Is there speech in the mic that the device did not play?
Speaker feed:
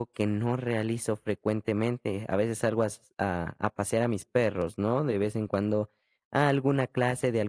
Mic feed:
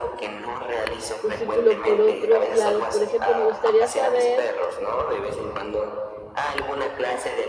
Yes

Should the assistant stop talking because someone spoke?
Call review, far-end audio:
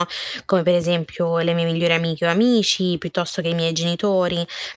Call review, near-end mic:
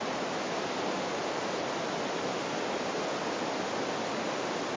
No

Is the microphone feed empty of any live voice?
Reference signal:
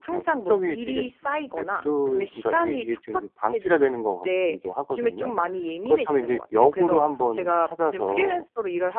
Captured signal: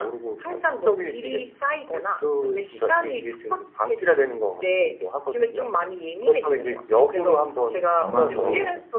No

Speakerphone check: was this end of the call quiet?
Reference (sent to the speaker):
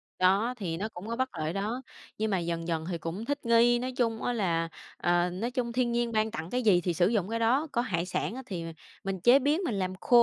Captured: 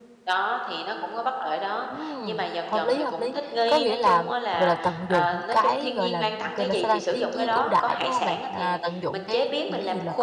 No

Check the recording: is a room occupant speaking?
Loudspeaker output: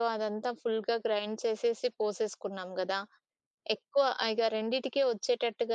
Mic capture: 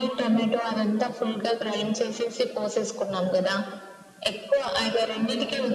No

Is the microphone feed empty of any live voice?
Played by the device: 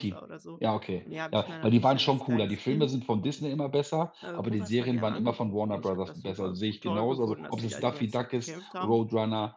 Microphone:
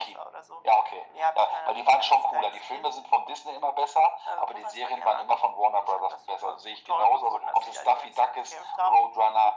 Yes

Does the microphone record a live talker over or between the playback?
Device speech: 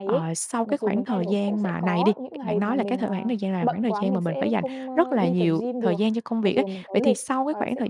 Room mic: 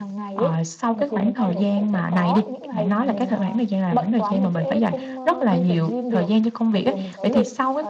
No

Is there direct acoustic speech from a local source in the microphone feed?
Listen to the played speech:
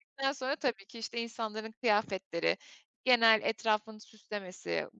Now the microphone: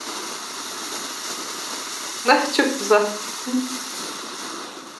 Yes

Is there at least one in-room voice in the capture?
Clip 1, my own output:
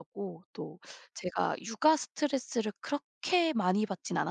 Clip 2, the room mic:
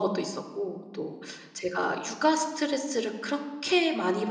No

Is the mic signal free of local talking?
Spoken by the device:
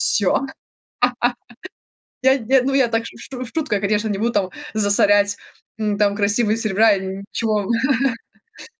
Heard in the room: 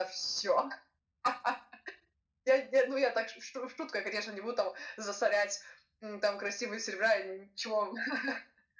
Yes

